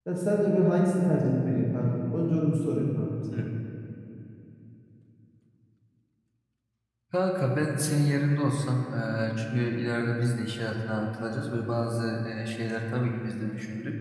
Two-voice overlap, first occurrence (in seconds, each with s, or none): none